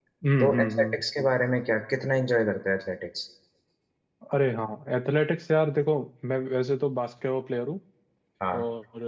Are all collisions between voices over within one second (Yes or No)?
Yes